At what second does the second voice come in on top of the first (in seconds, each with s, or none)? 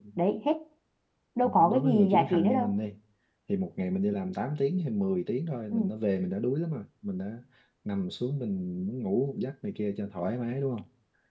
1.4 s